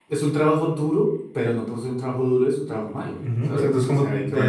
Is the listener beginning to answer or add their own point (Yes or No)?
Yes